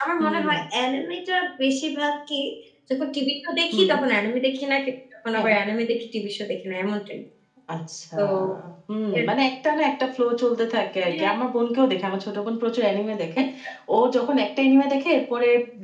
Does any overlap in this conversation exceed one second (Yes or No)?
No